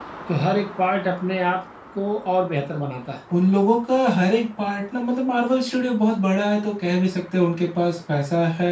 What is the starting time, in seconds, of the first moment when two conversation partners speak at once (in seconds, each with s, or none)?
none